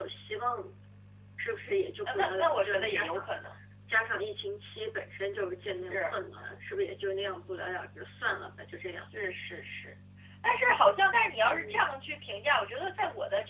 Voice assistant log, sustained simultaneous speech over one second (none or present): present